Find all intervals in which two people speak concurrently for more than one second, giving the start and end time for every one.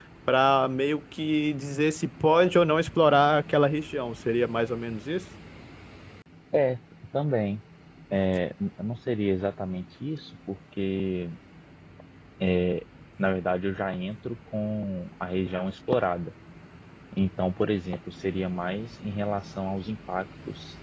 none

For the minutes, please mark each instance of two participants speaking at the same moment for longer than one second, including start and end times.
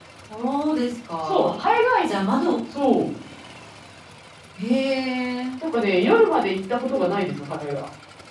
none

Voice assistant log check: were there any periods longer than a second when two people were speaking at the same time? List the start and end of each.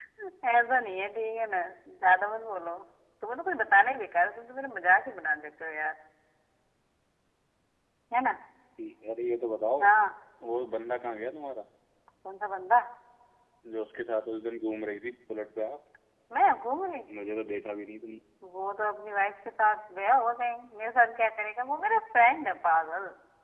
none

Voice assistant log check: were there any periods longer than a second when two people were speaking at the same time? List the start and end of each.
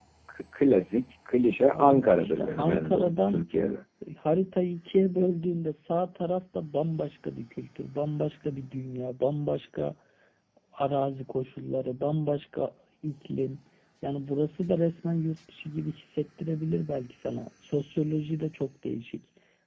1.7-3.4

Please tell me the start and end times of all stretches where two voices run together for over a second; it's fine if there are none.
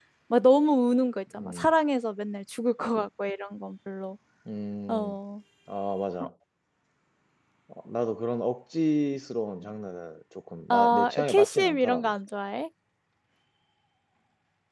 10.7-12.1

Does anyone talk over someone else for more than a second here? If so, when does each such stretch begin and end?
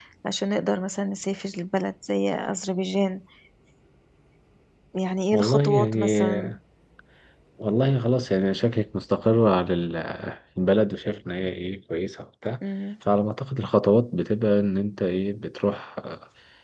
5.3-6.6

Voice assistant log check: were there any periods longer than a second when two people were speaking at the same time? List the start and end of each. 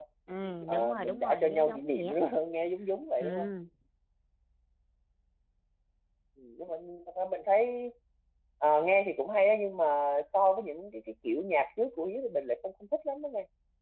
0.7-2.2

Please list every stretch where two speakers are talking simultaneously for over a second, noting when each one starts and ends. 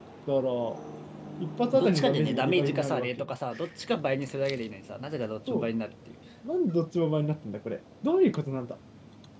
1.7-3.3

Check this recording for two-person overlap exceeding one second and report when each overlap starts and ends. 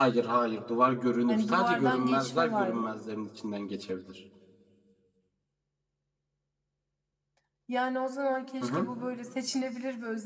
1.3-2.9

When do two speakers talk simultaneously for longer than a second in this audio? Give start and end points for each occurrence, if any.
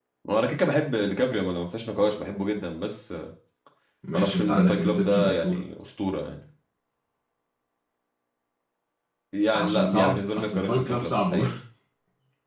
4.1-5.6, 9.5-11.5

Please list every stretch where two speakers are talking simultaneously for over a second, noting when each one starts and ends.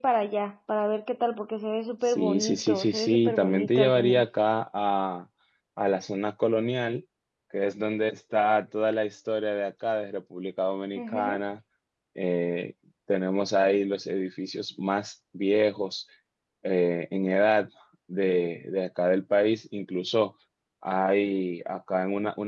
2.0-4.2

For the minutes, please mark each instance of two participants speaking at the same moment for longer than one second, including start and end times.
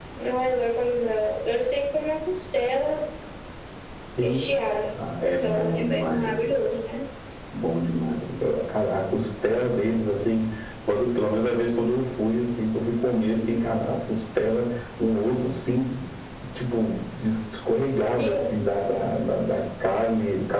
5.4-6.6

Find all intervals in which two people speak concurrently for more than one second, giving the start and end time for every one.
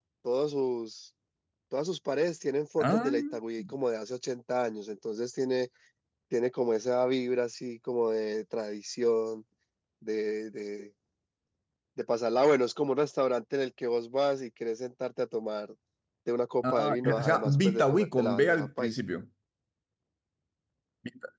16.7-19.0

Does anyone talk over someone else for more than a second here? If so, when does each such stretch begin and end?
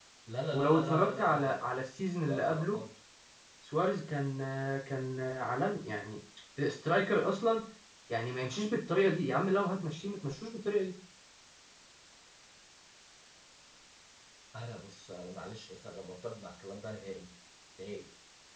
0.5-1.8

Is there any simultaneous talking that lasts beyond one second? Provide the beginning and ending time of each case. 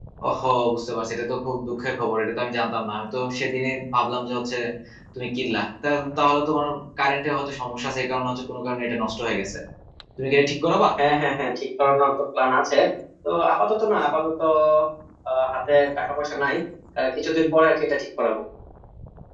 none

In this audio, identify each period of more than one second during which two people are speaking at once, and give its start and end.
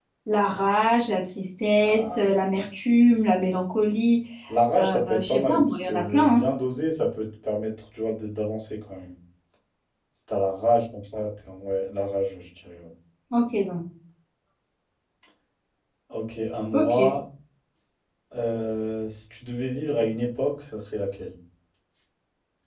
4.8-6.4

